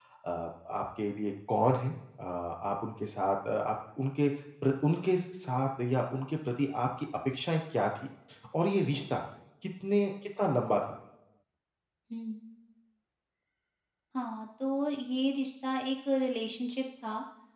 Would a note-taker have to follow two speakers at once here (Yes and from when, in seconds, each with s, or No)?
No